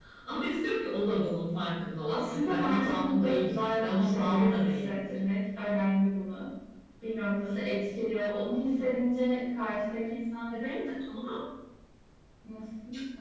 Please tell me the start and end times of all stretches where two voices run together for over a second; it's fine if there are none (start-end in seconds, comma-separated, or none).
2.1-5.0